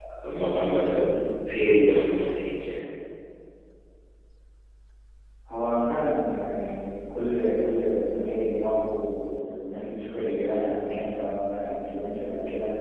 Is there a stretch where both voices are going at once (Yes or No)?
No